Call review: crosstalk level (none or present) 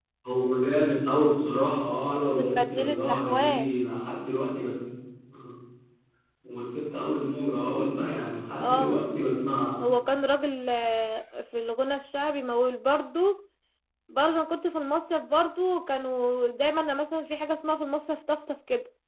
present